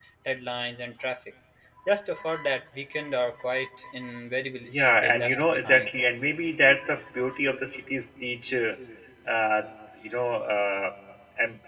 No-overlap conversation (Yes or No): No